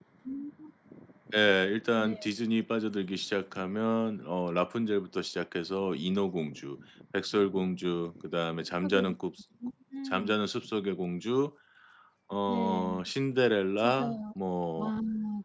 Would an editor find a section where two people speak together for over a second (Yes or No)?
No